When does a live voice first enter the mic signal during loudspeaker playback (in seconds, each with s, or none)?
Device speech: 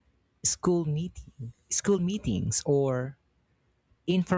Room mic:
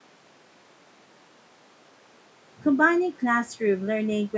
2.6 s